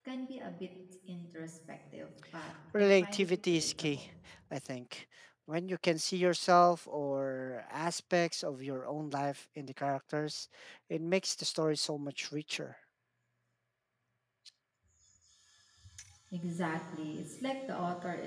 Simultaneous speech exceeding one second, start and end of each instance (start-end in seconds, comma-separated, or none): 2.7-4.0